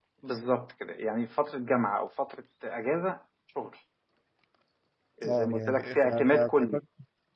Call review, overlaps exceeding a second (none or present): present